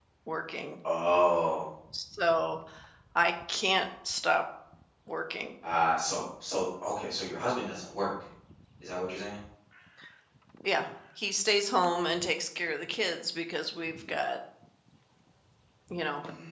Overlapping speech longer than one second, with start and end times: none

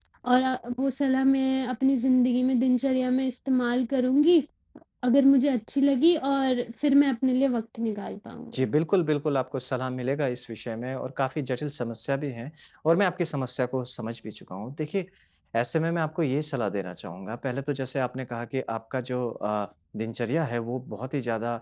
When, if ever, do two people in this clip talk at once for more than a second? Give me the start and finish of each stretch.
none

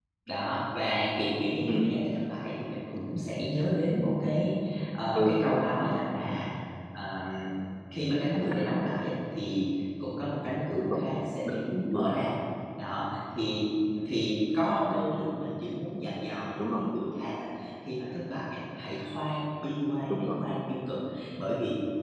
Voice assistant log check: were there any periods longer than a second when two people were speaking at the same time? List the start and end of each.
none

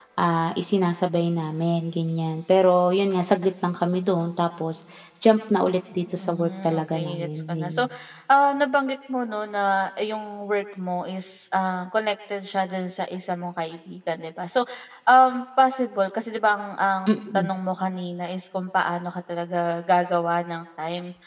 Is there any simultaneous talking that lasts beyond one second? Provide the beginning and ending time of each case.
6.2-7.9

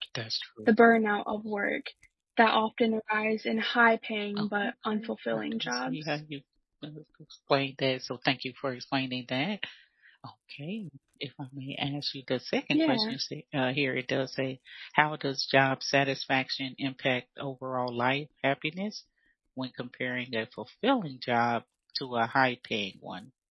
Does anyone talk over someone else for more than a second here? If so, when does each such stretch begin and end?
4.4-6.2

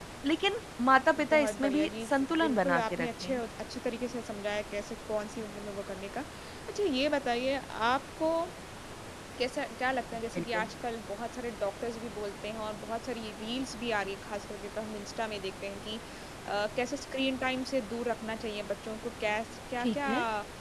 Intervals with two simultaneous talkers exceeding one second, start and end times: 1.2-3.4

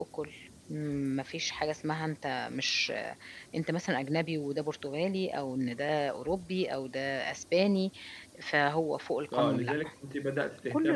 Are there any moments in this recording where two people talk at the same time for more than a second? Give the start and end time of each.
none

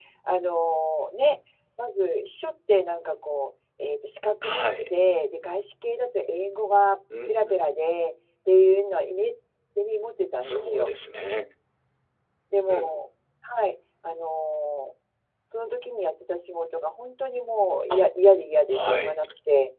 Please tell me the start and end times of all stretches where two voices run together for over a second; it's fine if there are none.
none

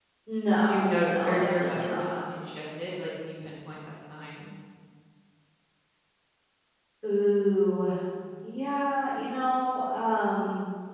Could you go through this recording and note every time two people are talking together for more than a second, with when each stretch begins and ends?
0.7-2.2

